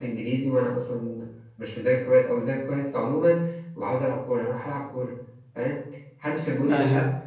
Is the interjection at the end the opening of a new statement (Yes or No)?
No